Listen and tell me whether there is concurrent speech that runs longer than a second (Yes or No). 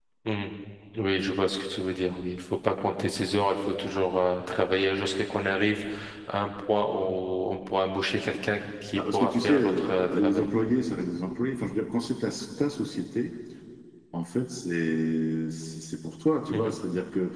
Yes